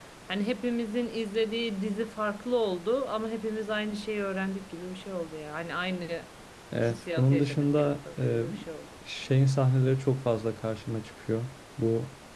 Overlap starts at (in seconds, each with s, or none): 6.8 s